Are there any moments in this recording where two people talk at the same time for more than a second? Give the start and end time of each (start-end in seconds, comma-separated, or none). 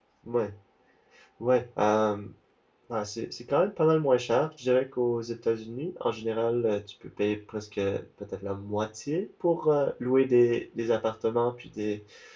none